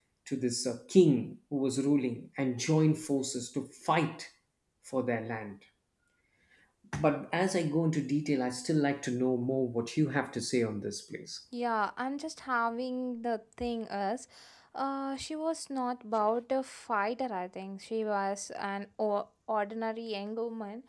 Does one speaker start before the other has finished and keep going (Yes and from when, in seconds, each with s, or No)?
No